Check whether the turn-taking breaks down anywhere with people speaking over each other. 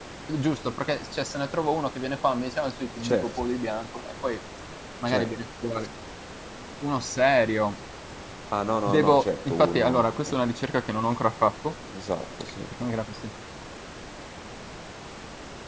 Yes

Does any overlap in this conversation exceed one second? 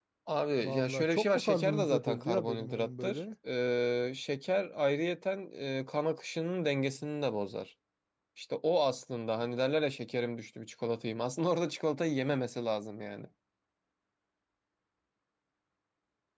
Yes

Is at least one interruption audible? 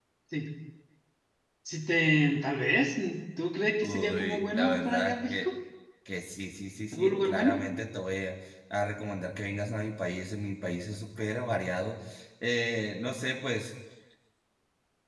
Yes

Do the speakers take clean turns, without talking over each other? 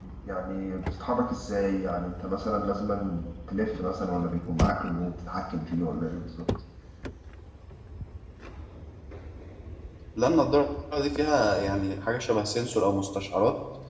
Yes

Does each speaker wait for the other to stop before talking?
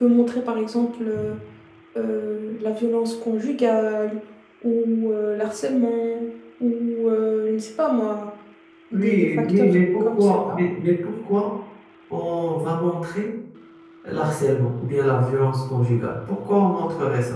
No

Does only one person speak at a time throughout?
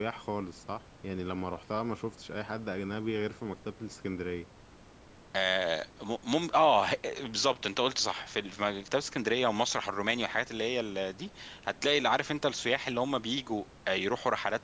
Yes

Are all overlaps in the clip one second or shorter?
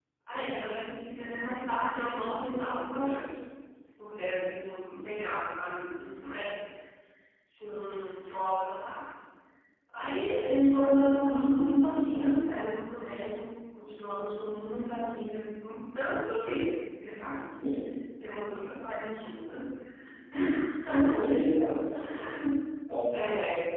Yes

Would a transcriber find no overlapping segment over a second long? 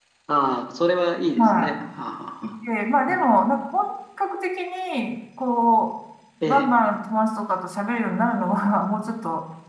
Yes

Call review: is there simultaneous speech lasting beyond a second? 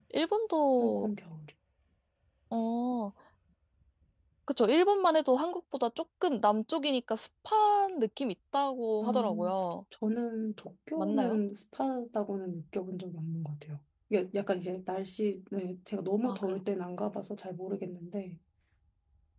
No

